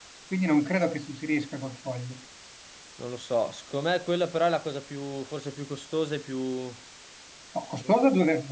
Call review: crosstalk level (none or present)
none